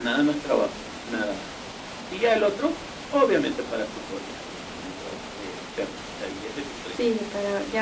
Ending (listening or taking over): taking over